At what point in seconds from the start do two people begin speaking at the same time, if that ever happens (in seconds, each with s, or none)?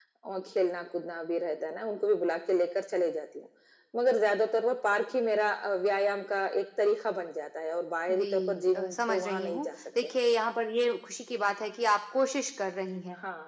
8.1 s